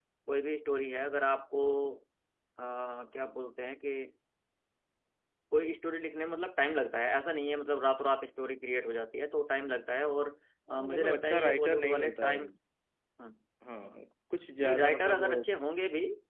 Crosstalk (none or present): present